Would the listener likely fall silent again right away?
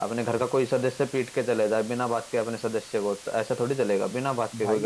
No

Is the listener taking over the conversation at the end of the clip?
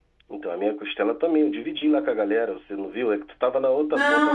Yes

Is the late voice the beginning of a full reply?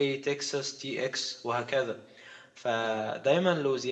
No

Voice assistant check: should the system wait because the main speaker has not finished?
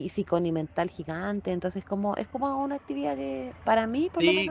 No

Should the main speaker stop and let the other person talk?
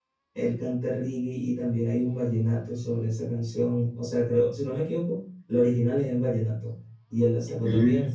No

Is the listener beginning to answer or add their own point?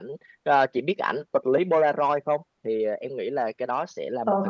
Yes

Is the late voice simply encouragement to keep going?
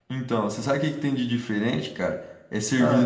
Yes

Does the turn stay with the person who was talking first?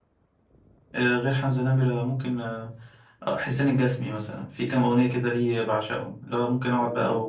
Yes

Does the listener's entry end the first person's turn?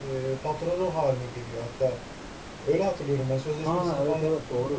Yes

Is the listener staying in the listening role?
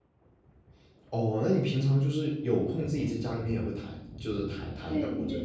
No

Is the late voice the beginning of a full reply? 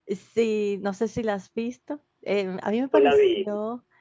No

